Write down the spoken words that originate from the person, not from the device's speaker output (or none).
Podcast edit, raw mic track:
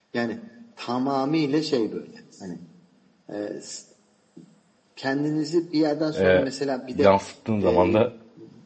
E, yansıttığın zaman da